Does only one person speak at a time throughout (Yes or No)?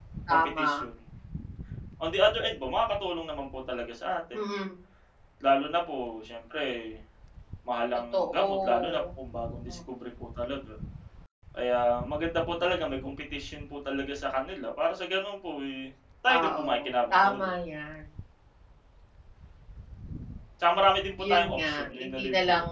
No